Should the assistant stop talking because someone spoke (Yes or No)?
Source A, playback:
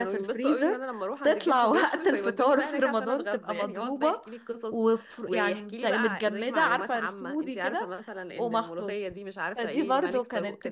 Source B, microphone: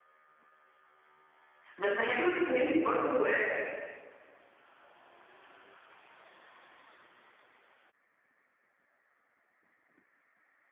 Yes